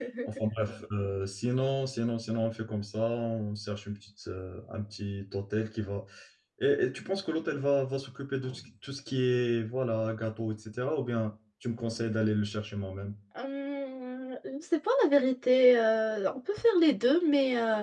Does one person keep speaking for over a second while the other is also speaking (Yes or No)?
No